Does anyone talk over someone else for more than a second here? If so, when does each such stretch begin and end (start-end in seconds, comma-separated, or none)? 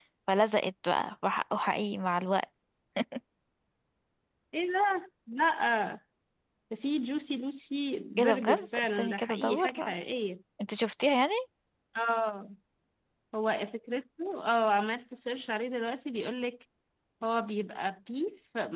8.2-9.9